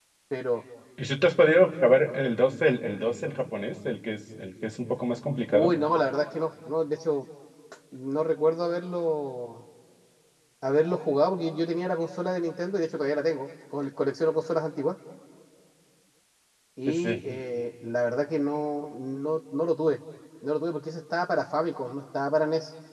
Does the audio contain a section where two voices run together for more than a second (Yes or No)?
No